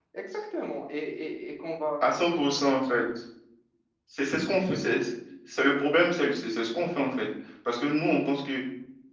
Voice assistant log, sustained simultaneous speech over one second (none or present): none